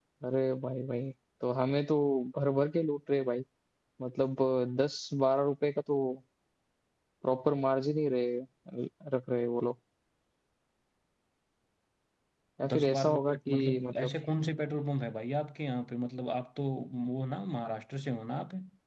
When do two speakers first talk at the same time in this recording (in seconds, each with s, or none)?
12.7 s